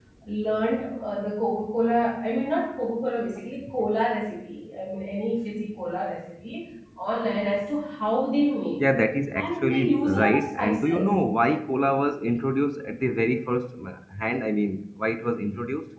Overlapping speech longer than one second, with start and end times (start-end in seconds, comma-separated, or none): 9.3-11.1